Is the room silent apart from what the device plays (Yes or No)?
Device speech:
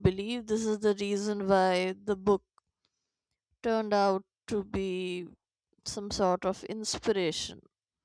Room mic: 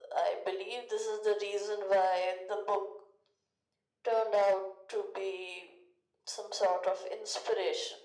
Yes